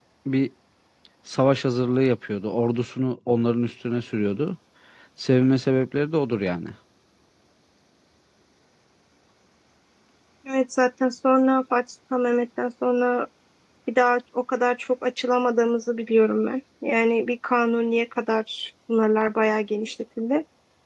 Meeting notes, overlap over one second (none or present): none